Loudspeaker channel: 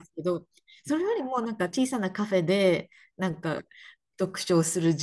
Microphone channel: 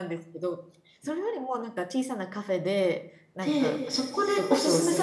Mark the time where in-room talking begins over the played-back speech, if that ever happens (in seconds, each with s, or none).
3.4 s